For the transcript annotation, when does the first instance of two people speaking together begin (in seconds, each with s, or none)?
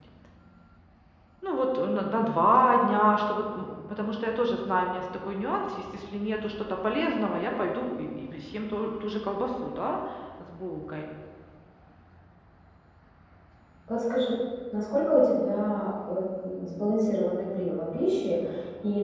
none